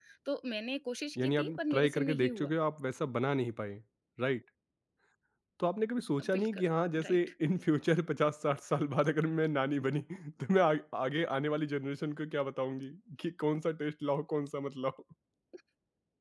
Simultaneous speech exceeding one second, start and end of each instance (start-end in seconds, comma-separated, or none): 1.2-2.6